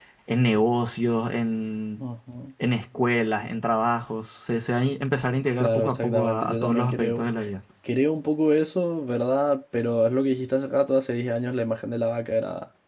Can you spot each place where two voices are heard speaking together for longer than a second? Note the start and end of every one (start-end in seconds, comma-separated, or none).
5.6-7.2